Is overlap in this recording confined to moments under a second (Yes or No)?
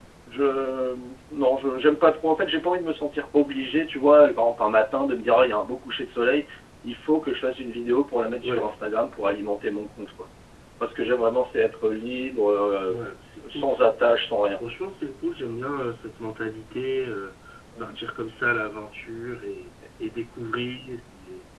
Yes